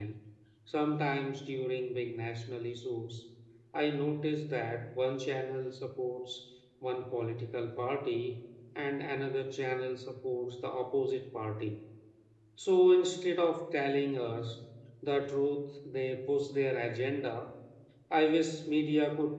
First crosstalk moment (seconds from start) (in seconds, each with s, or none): none